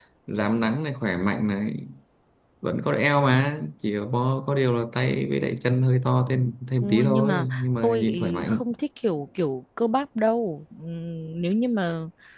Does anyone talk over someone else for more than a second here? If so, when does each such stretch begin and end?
6.8-8.6

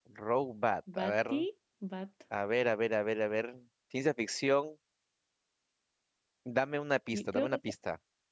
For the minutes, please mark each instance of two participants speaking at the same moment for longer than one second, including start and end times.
none

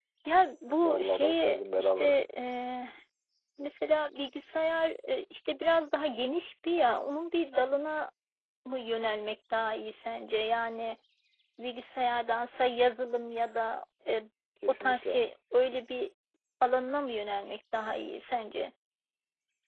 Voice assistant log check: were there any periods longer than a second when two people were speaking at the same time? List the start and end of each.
0.8-2.2

